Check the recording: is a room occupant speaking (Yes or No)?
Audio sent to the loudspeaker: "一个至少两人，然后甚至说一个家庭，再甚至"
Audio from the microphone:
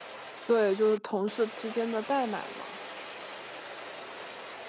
Yes